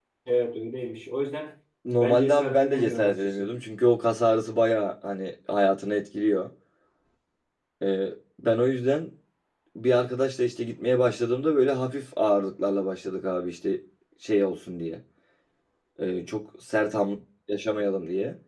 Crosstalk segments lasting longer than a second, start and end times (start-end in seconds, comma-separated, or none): 2.0-3.5